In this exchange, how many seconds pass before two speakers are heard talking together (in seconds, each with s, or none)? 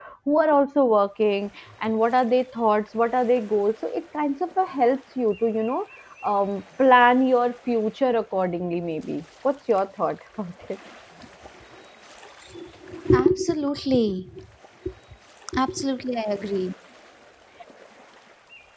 none